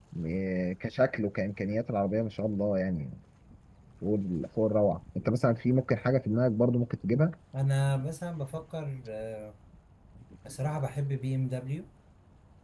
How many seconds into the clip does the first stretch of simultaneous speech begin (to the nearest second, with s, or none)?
none